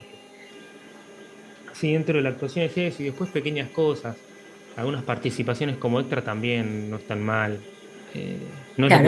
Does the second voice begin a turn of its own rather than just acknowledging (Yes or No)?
Yes